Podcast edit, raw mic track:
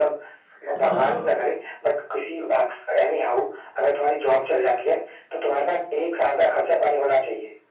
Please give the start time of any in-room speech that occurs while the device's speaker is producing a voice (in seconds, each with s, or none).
0.8 s